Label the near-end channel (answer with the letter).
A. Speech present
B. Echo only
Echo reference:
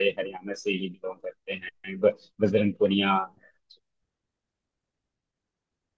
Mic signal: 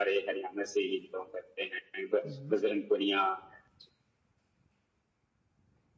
A